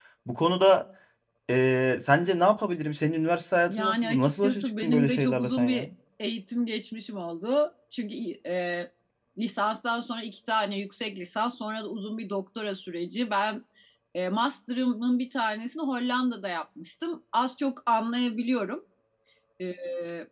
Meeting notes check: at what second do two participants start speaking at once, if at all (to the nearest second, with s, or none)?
4 s